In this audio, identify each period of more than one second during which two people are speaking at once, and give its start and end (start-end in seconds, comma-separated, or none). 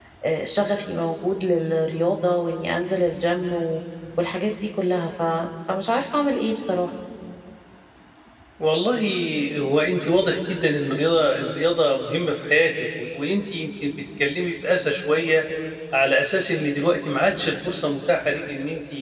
none